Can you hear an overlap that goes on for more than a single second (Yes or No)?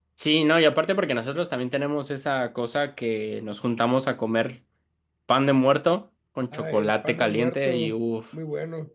Yes